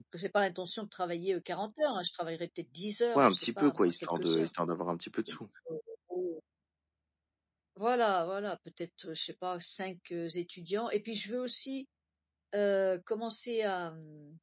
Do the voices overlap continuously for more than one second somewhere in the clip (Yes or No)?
Yes